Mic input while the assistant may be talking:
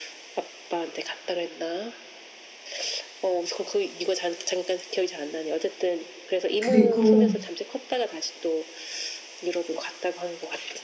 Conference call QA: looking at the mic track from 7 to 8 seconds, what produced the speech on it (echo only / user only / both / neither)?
both